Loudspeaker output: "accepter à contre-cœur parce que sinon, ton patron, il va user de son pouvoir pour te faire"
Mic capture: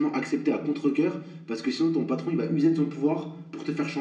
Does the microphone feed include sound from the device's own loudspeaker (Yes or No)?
Yes